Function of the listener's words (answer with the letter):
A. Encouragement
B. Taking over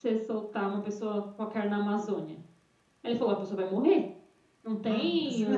B